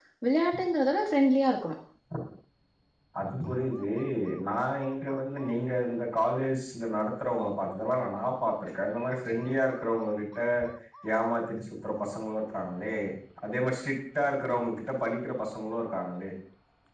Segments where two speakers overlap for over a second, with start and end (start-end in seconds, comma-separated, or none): none